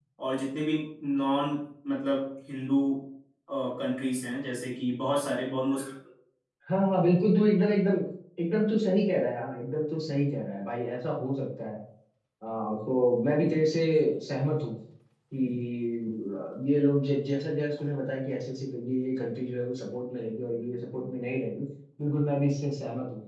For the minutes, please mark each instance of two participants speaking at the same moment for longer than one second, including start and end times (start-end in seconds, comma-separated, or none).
none